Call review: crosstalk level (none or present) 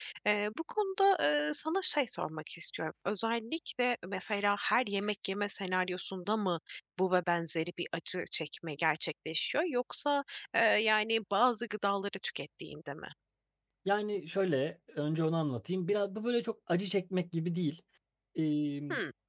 none